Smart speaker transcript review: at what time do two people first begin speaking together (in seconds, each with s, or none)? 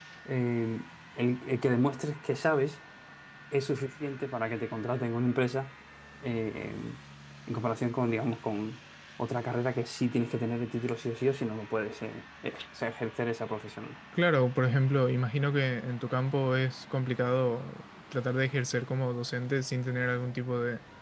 none